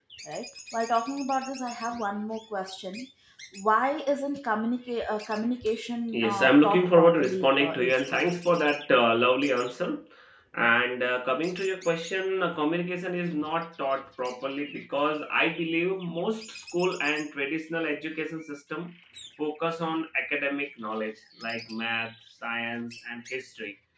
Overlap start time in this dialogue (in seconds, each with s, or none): 6.1 s